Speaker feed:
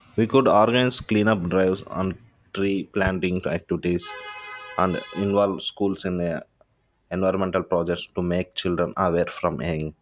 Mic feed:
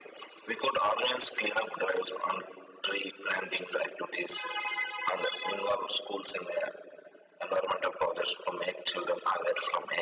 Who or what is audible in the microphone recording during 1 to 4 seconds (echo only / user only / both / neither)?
echo only